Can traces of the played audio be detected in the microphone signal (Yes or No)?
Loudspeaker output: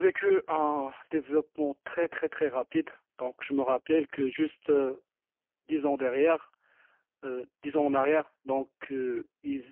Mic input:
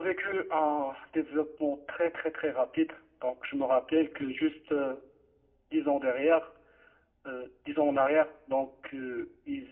Yes